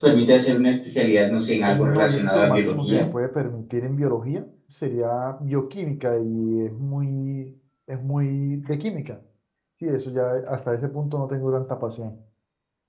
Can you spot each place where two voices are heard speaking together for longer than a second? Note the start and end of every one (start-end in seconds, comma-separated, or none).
1.7-3.0